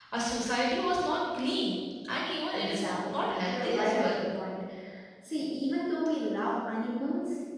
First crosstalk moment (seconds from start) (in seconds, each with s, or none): 2.6 s